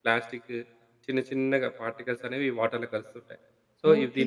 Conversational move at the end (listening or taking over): taking over